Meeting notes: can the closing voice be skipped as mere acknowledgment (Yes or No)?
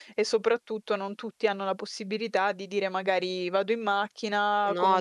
Yes